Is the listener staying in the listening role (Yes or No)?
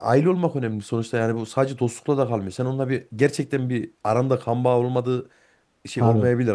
Yes